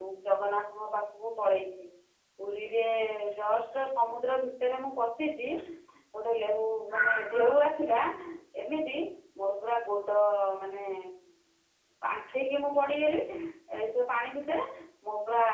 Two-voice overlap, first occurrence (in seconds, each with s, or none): none